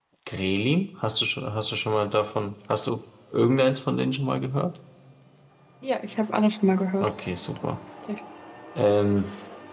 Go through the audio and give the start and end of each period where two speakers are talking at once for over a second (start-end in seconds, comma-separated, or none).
none